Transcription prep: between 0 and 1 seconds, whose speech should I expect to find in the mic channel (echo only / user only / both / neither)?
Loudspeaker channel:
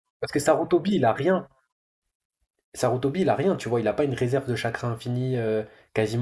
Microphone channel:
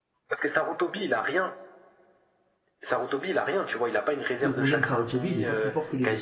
echo only